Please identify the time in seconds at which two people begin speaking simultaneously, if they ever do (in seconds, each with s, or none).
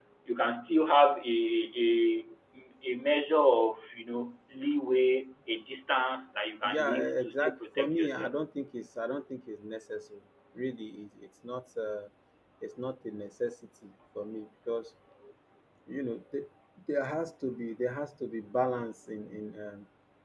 6.6 s